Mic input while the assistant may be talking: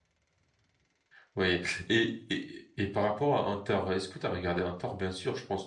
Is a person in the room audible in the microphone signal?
Yes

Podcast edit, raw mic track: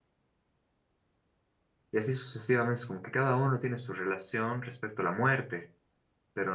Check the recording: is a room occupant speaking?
Yes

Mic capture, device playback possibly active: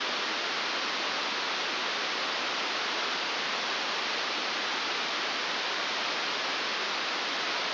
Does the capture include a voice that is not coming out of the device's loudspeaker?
No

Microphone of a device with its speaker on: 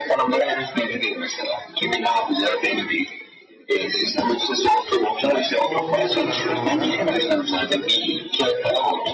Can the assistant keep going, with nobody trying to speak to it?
No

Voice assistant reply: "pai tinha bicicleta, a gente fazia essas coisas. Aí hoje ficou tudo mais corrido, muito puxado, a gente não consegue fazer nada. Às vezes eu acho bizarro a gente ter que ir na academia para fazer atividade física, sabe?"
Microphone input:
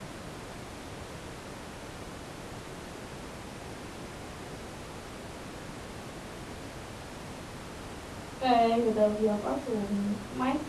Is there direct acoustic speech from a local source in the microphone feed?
Yes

